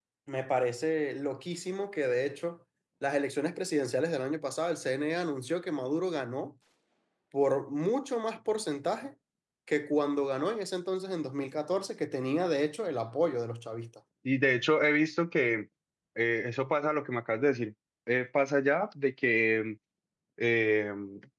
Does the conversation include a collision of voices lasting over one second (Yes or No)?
No